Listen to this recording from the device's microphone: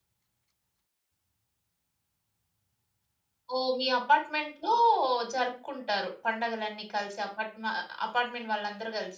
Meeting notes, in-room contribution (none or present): present